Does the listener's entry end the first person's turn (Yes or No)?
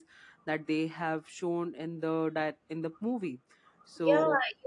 Yes